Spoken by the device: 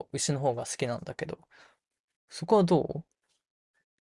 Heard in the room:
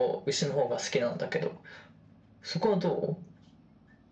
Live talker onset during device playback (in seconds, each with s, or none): none